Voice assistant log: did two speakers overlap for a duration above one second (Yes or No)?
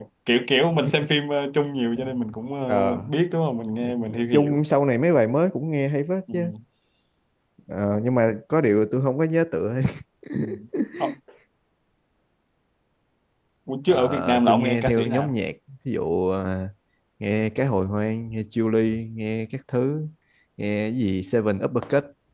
Yes